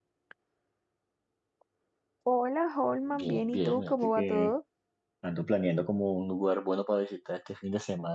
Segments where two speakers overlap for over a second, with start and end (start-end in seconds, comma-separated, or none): 3.1-4.5